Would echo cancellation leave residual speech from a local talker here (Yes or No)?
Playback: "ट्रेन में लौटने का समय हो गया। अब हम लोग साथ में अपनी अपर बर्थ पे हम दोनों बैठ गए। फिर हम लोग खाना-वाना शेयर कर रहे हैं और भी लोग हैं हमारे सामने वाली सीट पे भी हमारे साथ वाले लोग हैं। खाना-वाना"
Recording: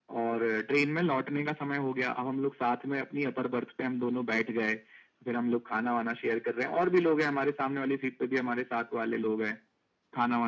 No